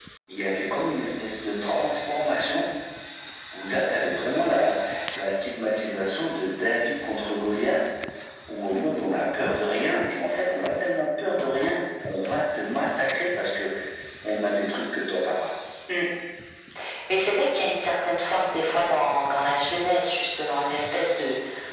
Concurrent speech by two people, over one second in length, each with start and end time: none

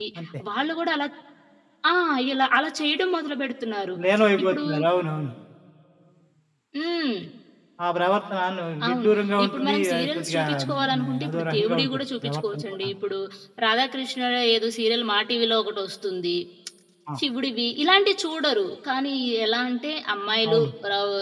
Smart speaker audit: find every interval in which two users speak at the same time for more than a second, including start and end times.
9.4-12.8

